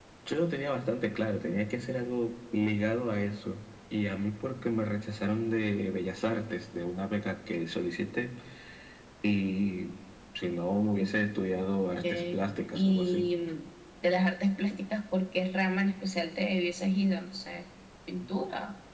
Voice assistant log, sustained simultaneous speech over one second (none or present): present